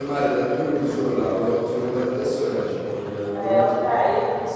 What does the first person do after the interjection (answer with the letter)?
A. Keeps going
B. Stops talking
B